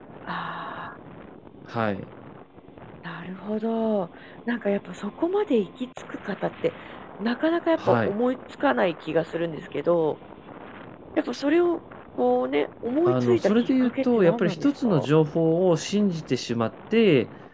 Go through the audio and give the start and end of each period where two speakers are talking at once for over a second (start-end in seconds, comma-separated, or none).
13.1-14.9